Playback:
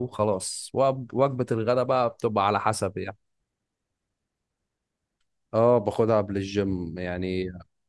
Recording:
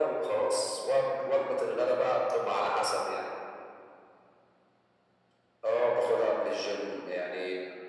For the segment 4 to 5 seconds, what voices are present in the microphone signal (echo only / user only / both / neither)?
neither